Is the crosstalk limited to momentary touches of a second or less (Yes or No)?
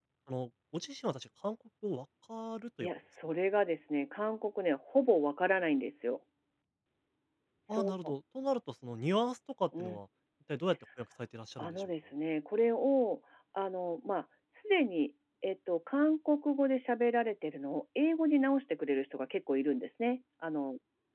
Yes